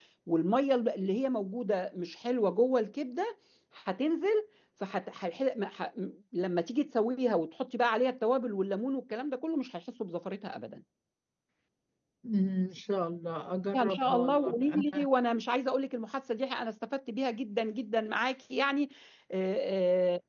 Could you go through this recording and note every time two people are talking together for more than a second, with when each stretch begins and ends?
13.7-15.1

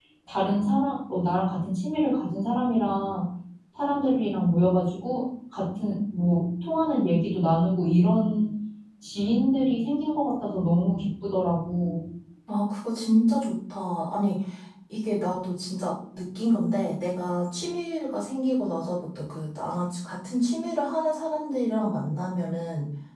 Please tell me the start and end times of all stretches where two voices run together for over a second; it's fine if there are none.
none

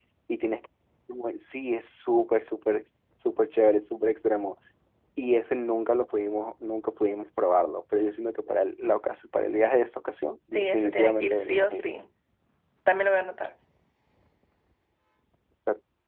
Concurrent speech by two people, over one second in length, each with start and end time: 10.5-11.8

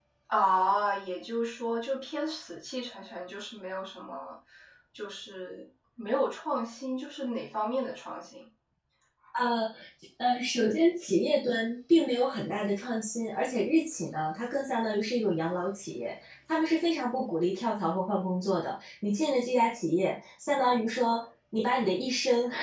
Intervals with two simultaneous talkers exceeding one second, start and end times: none

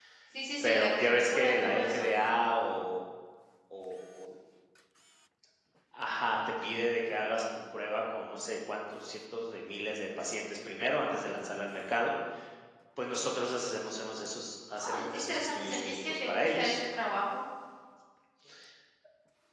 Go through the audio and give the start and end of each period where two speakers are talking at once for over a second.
0.6-2.1, 14.8-16.8

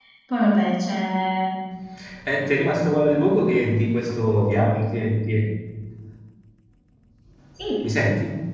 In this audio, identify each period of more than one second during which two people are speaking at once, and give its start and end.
none

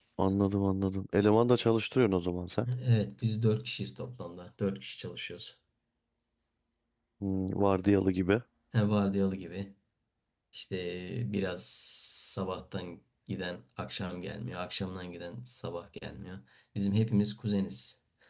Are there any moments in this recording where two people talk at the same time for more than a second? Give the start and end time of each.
none

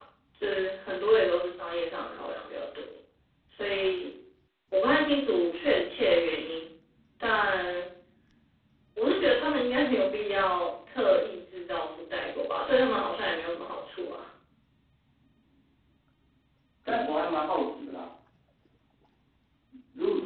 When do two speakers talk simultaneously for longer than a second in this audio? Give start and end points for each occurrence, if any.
none

